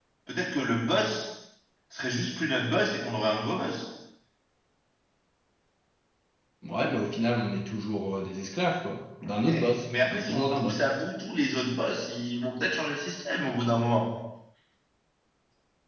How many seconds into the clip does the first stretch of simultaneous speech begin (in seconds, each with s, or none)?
9.5 s